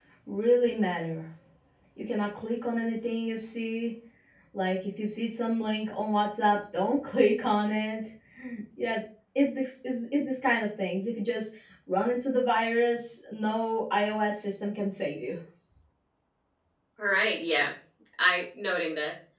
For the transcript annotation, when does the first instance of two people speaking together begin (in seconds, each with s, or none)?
none